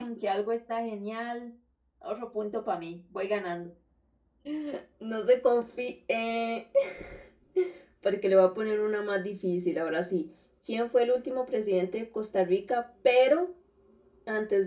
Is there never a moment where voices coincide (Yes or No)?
Yes